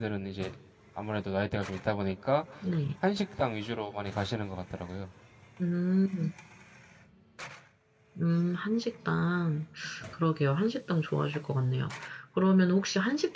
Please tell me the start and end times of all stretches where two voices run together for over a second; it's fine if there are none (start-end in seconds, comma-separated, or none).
none